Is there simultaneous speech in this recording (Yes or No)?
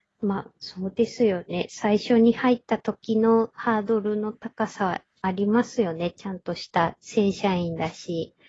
No